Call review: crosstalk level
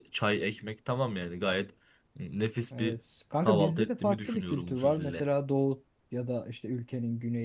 present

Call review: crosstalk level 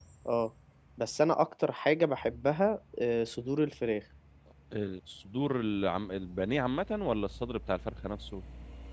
none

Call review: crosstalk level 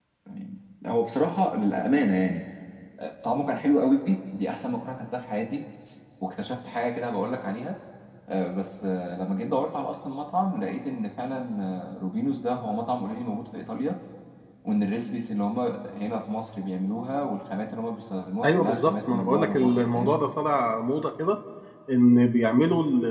present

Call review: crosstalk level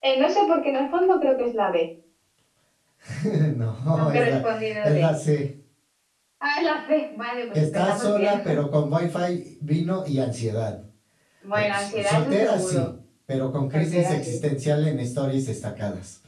present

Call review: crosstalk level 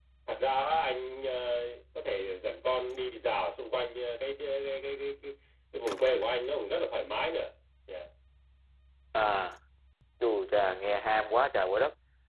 none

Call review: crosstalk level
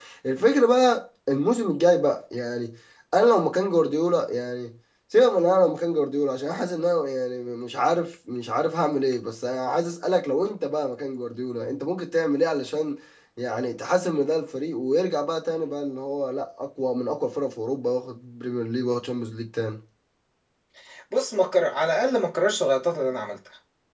none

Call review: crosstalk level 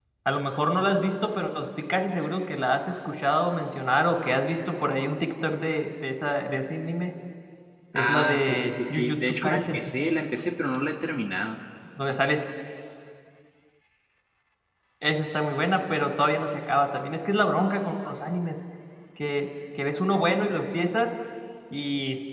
present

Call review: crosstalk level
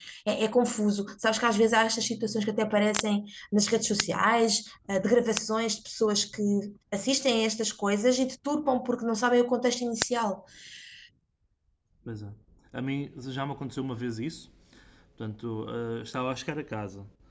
none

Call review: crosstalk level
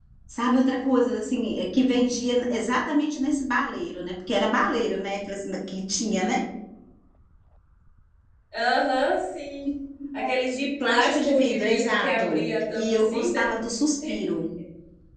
present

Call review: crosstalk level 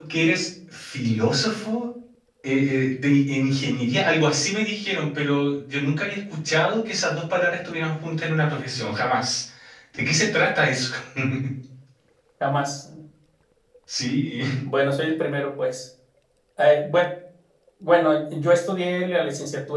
none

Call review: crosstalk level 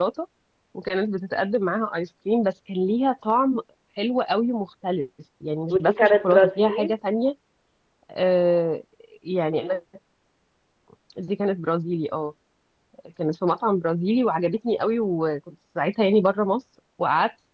present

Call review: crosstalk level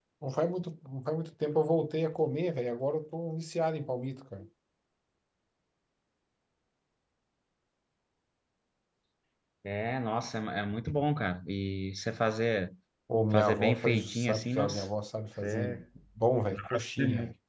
present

